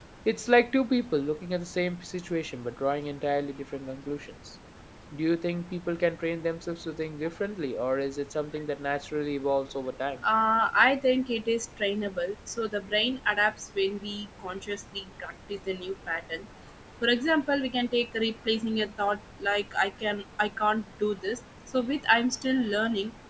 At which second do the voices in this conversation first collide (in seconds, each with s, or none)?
none